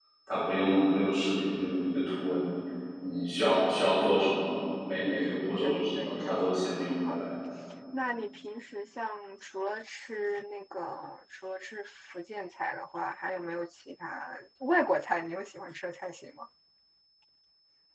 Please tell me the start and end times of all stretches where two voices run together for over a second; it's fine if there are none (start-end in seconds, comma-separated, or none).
5.6-7.2